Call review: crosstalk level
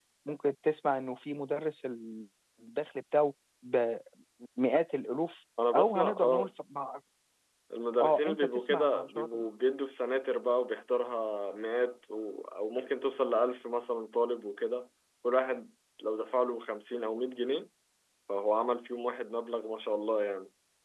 present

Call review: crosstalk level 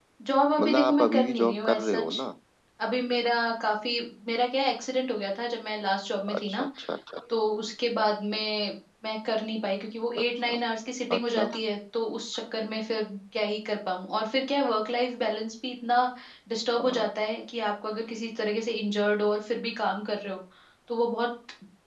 present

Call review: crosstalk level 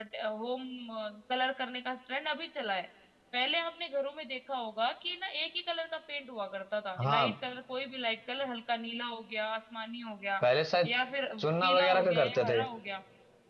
present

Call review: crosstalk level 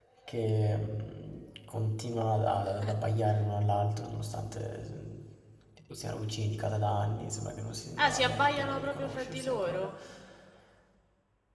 present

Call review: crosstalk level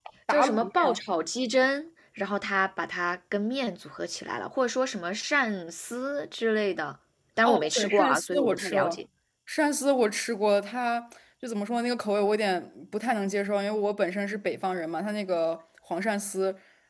present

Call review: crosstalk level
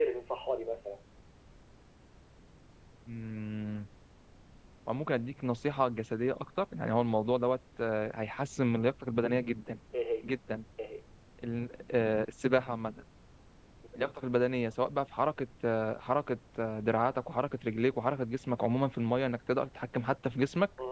none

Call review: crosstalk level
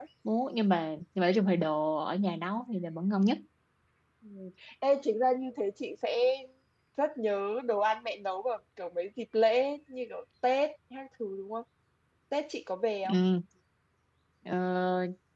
none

